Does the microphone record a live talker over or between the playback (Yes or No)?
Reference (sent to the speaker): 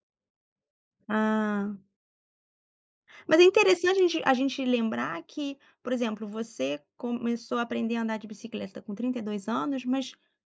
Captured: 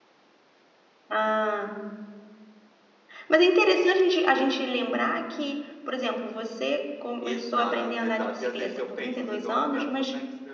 Yes